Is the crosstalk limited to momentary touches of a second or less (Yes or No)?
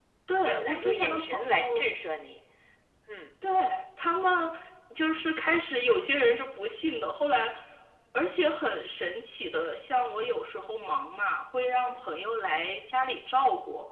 No